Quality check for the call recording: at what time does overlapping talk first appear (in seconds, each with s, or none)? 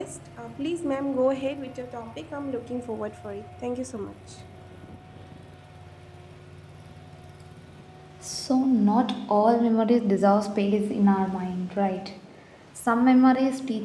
none